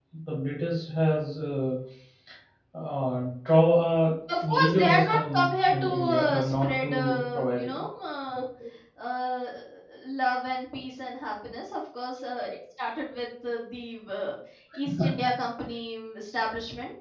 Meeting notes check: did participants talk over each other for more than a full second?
Yes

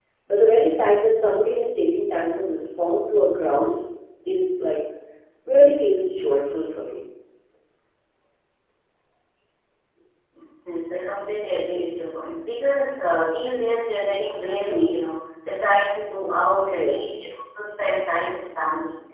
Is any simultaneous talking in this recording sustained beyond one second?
No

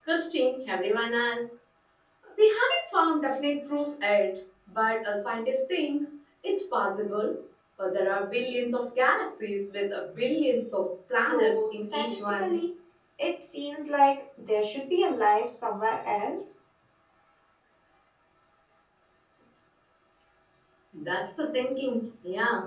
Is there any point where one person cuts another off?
Yes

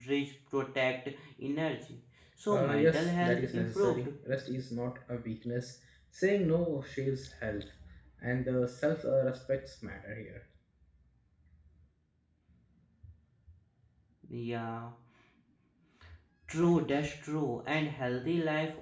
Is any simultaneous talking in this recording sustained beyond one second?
Yes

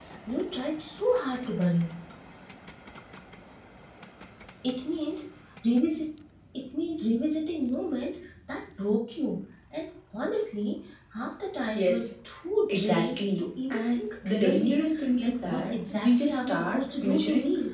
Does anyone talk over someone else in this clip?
Yes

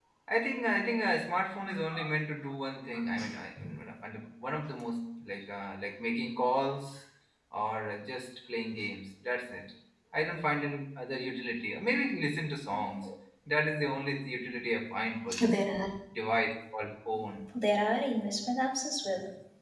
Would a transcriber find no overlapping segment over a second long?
Yes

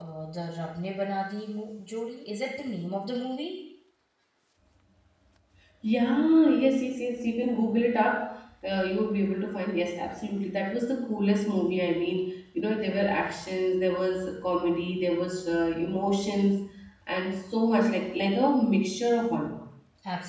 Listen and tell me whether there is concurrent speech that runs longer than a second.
No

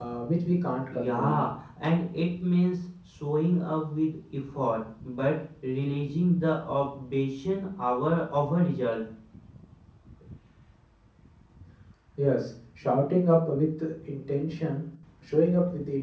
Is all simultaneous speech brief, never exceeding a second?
Yes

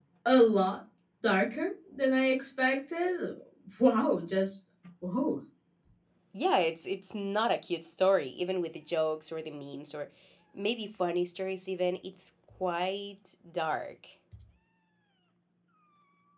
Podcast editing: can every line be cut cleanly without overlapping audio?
Yes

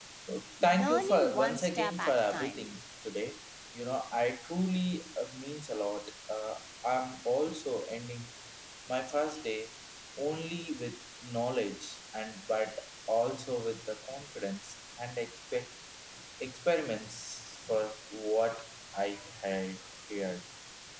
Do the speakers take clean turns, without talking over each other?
No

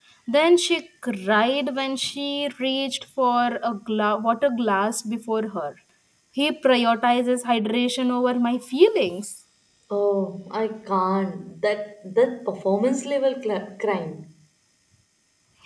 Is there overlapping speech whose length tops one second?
No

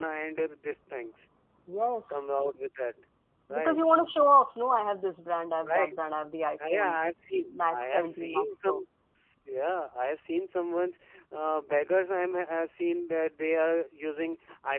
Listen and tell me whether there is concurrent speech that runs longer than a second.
Yes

